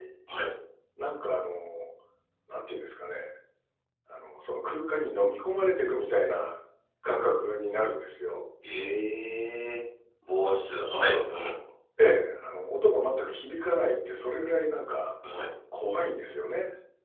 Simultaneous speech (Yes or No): No